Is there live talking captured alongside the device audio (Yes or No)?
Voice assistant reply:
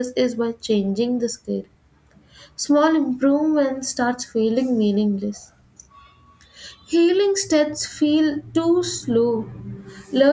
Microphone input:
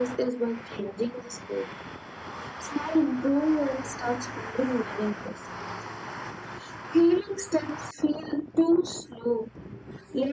No